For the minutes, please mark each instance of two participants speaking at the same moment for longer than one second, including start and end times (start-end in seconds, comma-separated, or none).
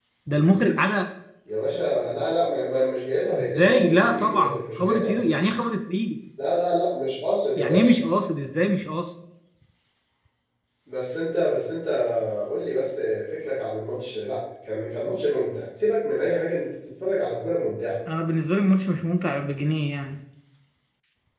3.4-5.4